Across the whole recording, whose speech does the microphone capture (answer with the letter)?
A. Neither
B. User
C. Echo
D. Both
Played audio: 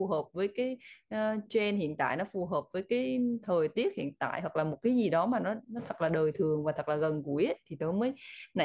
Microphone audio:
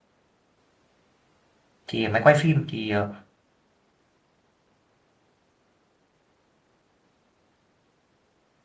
B